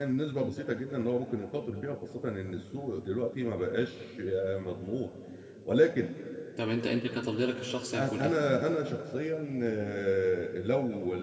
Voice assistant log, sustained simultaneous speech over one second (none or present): none